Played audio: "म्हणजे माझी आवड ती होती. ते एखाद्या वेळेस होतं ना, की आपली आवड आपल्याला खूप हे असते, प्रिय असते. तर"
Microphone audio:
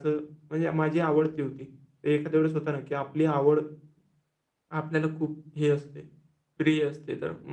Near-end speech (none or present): none